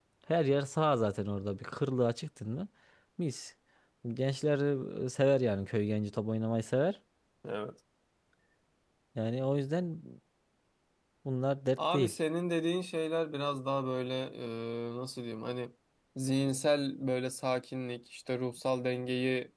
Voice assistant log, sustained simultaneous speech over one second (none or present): none